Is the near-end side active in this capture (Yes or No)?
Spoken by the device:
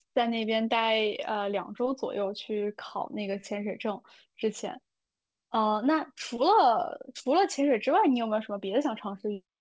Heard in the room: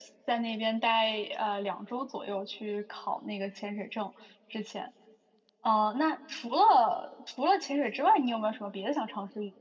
No